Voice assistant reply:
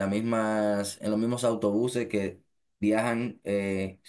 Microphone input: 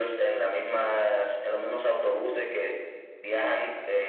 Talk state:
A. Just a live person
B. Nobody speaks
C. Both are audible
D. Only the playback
D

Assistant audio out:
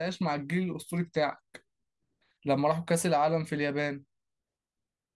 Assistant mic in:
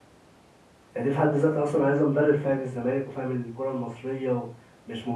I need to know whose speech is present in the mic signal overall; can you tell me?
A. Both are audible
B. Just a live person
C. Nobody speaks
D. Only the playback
B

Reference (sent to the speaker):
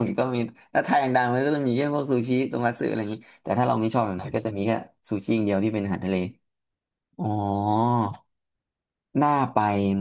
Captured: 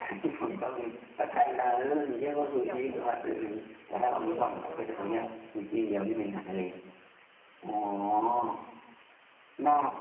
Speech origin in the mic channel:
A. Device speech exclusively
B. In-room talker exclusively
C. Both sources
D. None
C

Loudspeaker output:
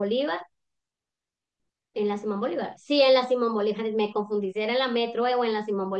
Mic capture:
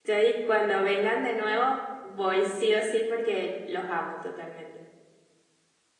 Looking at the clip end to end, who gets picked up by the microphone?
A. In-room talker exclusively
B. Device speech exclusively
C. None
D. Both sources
A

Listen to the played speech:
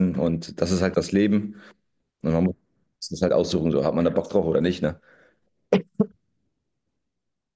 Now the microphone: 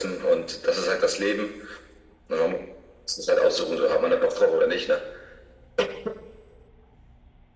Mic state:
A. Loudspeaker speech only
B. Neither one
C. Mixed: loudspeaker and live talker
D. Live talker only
A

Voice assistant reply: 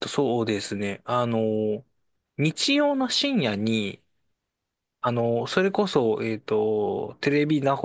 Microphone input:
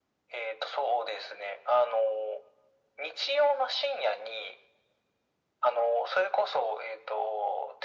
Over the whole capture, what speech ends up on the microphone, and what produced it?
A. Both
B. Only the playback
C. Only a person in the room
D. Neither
B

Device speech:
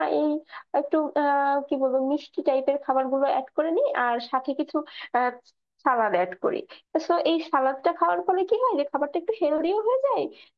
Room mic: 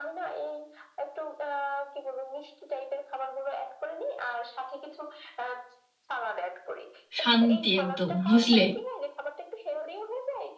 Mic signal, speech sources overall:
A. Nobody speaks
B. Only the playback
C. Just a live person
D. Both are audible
D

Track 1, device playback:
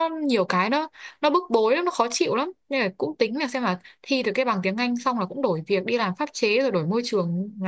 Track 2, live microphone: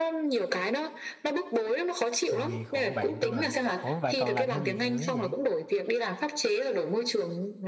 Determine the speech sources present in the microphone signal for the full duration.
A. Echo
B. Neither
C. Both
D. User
C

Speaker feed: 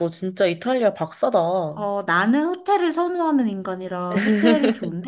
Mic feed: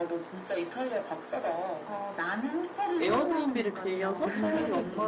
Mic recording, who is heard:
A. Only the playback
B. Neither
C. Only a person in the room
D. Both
D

